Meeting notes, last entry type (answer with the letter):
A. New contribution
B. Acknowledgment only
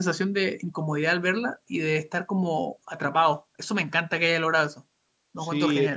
A